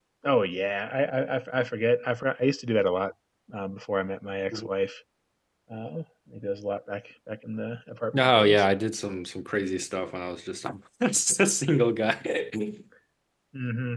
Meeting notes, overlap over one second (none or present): none